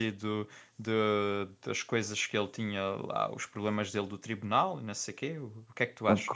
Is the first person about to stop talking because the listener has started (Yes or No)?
Yes